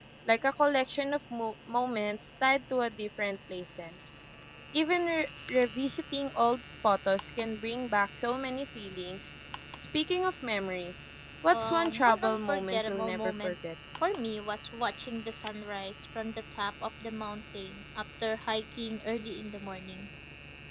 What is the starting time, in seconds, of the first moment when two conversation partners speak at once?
11.5 s

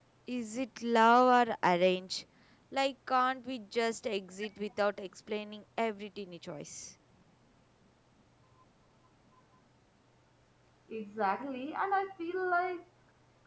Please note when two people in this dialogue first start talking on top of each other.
none

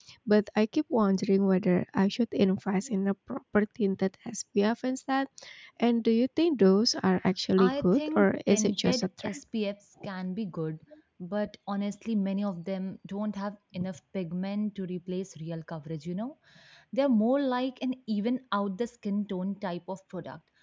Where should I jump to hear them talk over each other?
7.6 s

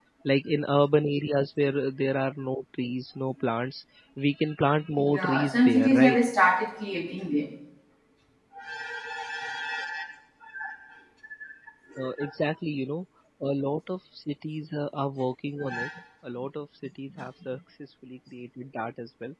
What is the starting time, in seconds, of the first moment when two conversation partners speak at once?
5.0 s

